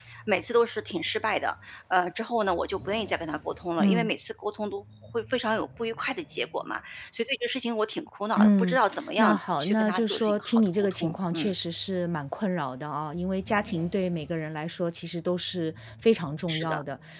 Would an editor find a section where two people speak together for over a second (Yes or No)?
Yes